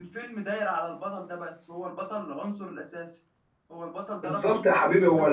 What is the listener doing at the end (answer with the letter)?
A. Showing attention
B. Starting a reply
B